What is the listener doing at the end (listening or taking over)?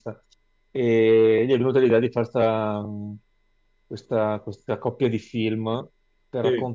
listening